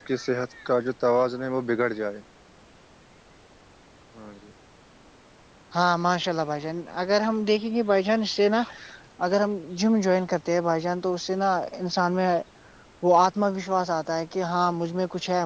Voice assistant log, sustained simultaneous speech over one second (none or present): none